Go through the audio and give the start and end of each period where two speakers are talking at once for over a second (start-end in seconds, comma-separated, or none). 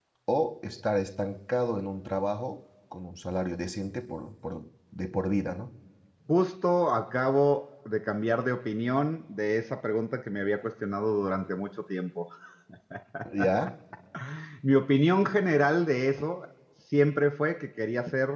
none